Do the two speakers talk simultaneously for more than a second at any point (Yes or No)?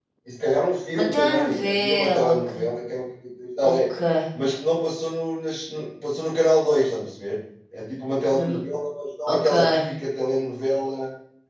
Yes